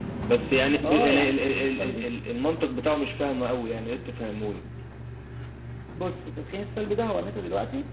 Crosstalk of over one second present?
Yes, from 0.8 s

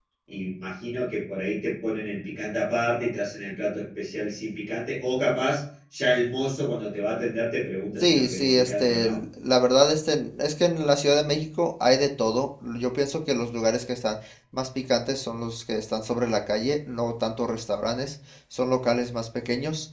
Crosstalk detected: Yes, from 8.0 s

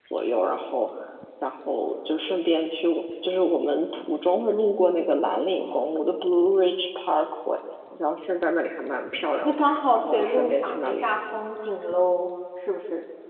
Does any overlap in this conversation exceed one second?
Yes, from 9.4 s

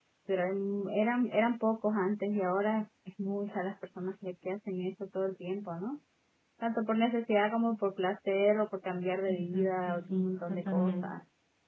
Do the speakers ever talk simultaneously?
Yes, from 9.3 s

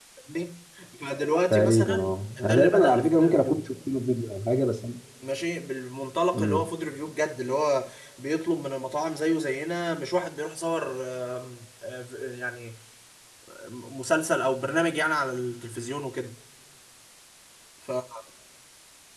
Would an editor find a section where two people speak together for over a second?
Yes, from 1.5 s

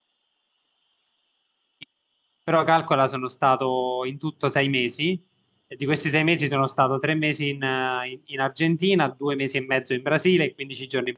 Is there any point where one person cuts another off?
No

